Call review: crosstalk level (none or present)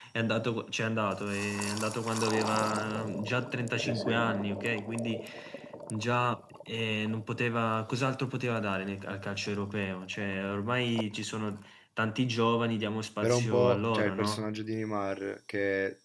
present